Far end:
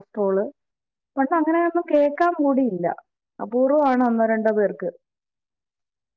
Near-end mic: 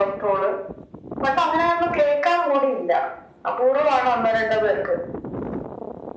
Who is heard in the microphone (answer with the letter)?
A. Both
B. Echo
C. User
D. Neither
B